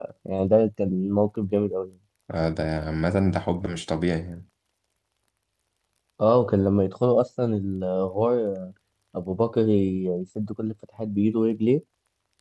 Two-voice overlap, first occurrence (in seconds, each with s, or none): none